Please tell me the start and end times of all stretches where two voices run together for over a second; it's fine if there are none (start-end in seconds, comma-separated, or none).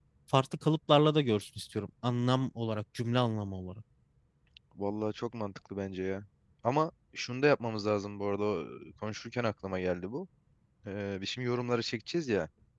none